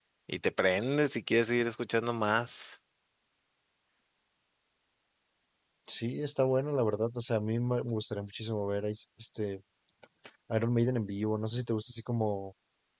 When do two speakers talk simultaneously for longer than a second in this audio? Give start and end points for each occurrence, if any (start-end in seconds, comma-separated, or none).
none